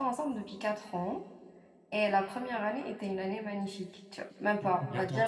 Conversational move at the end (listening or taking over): taking over